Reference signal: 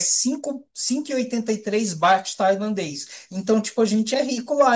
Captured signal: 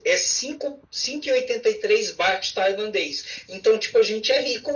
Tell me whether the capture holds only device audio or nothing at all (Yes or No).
Yes